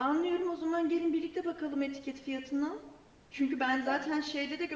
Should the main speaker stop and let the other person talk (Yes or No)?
No